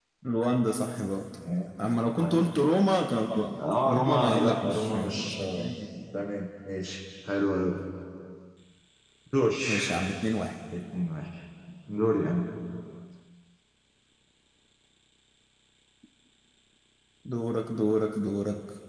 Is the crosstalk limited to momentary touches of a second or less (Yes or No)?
No